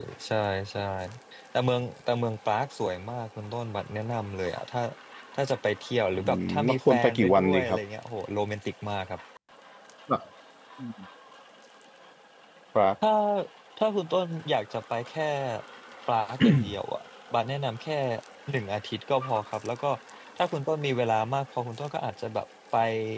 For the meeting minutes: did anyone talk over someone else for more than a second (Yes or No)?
Yes